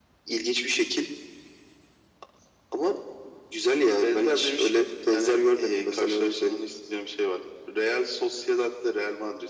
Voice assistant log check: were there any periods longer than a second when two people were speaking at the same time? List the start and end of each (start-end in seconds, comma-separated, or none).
4.0-6.6